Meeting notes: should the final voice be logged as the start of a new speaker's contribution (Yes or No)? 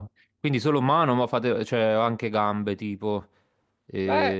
Yes